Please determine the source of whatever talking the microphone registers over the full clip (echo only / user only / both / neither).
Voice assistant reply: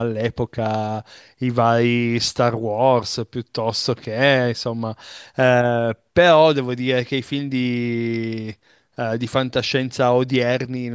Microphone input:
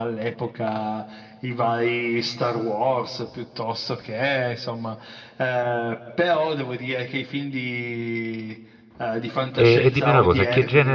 both